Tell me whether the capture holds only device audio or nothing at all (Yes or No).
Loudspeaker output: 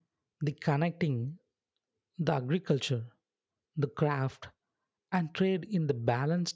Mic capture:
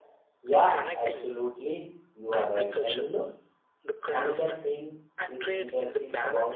No